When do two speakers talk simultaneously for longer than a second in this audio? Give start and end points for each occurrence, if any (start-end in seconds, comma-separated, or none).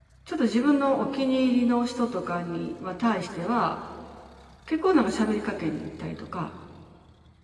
none